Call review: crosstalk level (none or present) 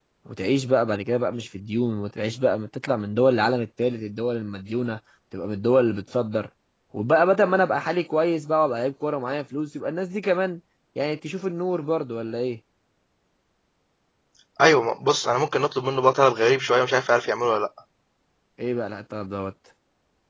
none